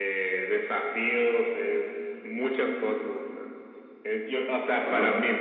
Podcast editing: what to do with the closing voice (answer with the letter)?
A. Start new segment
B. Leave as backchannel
B